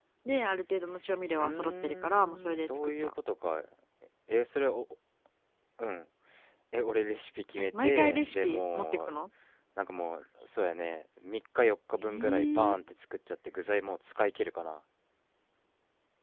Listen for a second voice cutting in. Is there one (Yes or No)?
Yes